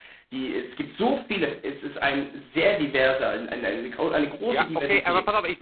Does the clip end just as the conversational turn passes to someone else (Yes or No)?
Yes